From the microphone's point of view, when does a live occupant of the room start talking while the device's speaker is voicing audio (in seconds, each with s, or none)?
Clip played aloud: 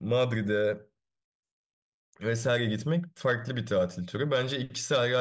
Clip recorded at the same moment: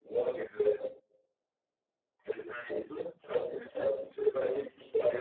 none